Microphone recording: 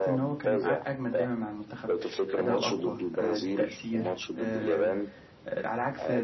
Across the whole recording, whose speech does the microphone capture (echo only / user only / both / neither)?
both